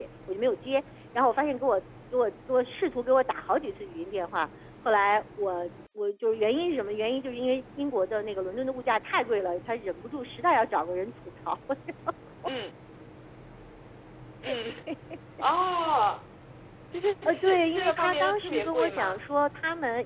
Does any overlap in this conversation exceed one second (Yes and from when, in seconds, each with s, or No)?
Yes, from 17.2 s